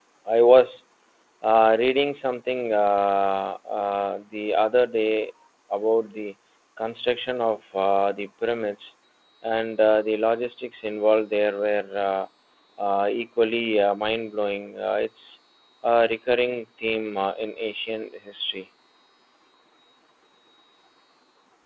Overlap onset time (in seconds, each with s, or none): none